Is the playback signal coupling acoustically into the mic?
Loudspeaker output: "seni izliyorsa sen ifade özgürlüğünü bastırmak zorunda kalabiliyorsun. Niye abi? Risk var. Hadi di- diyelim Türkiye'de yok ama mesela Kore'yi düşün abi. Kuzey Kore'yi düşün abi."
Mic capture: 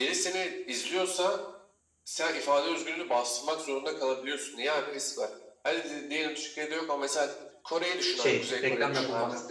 Yes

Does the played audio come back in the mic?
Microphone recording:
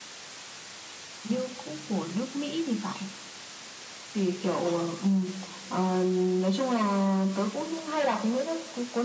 Yes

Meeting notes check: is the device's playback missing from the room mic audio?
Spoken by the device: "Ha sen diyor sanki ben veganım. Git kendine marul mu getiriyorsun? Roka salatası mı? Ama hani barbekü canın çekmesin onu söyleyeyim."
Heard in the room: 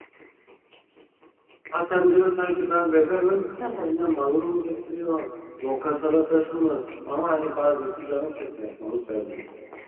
No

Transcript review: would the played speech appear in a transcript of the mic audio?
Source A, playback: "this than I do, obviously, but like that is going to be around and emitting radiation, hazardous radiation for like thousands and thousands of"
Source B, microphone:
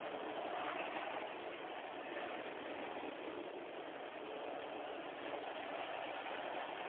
No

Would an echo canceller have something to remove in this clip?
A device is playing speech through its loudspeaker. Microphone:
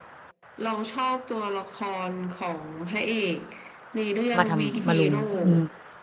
Yes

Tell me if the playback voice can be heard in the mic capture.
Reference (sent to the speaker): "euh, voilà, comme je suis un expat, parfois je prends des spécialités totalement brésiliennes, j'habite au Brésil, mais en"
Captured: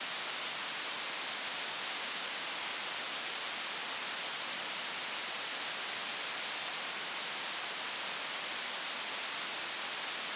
No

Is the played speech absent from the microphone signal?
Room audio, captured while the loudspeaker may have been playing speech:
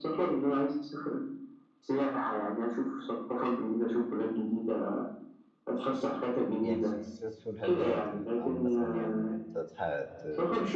No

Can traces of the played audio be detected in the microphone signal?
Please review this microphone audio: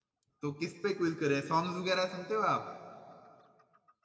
No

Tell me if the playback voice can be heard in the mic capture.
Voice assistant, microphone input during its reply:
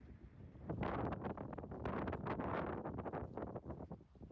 No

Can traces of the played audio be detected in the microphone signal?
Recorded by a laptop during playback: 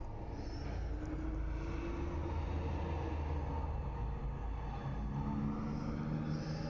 No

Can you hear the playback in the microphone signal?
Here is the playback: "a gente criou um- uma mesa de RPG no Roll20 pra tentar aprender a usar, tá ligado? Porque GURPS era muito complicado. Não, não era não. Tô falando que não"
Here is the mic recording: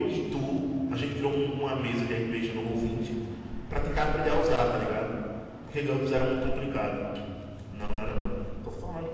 Yes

